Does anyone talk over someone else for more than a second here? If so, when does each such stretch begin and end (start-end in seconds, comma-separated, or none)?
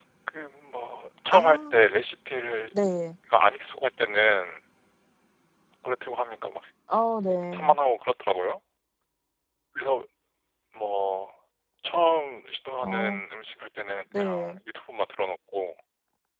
none